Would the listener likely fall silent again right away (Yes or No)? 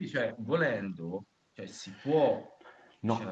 No